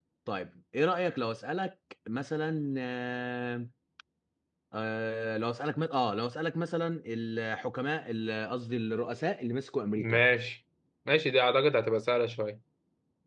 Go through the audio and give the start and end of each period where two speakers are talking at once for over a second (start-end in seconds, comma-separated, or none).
none